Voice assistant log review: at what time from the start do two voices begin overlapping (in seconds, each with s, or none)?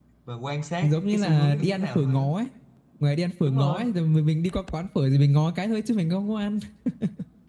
0.8 s